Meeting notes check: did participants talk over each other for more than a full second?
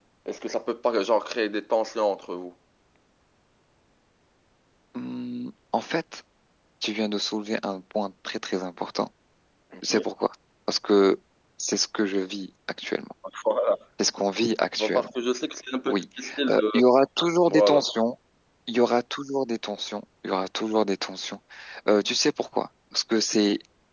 No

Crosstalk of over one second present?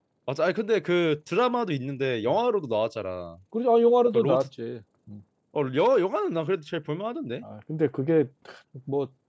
No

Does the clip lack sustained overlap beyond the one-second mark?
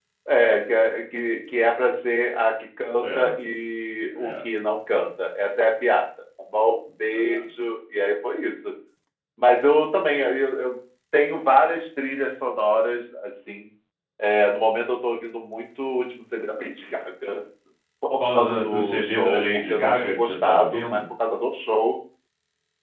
No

